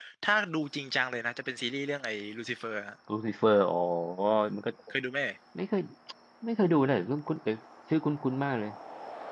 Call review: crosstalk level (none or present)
none